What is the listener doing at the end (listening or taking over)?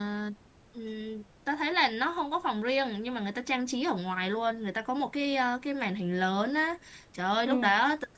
listening